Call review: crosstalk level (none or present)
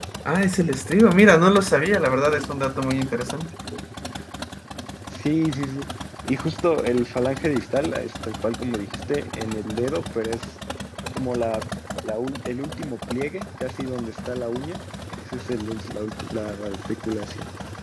none